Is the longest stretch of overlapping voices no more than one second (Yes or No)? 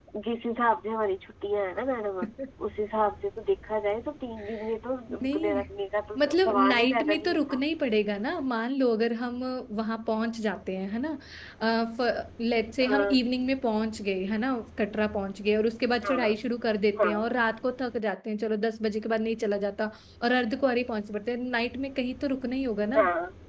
No